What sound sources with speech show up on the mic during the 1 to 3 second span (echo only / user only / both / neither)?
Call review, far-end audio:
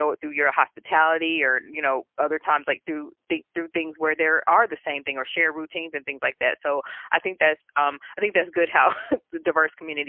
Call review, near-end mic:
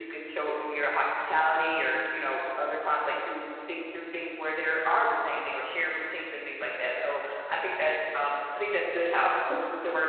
echo only